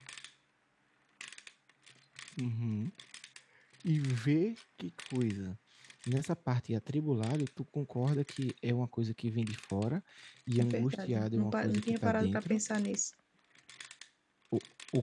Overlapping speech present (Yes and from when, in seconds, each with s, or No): Yes, from 10.6 s